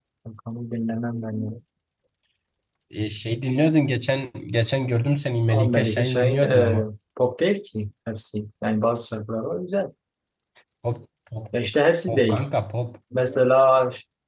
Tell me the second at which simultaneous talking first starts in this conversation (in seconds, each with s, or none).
5.5 s